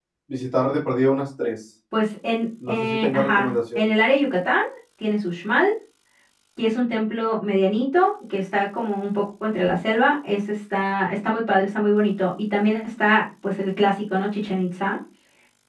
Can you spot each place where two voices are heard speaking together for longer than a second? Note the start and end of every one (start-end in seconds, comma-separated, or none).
2.7-3.9